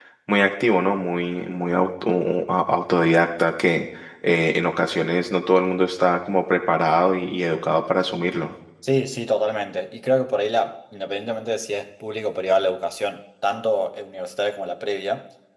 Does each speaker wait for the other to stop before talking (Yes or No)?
Yes